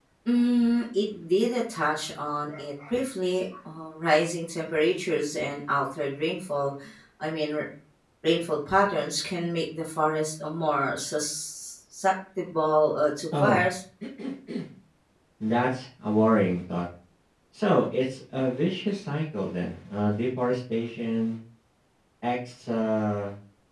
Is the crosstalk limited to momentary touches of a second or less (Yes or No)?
Yes